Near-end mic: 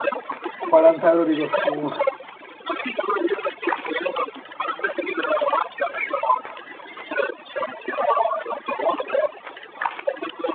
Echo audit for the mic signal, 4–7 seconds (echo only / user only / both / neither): echo only